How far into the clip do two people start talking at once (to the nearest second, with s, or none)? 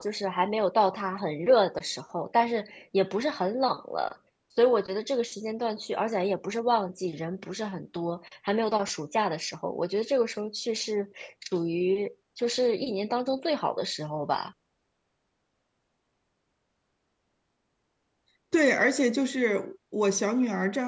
none